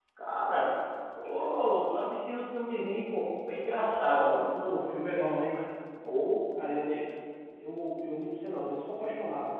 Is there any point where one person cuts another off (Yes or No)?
Yes